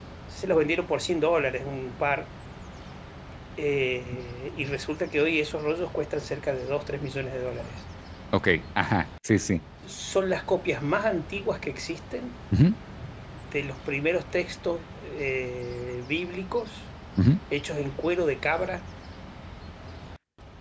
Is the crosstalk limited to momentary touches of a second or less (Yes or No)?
Yes